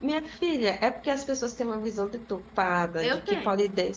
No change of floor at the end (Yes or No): Yes